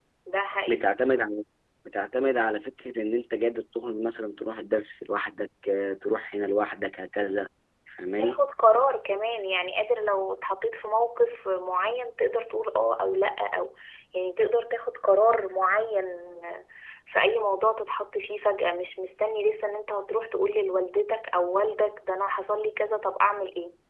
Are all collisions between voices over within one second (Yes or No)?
Yes